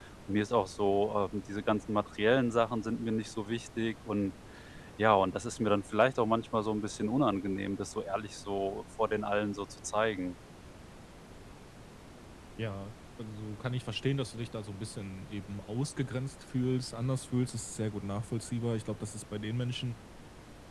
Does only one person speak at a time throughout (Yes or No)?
Yes